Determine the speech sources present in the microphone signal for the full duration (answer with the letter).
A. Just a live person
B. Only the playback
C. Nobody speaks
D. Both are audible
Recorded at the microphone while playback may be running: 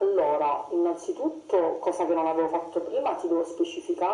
B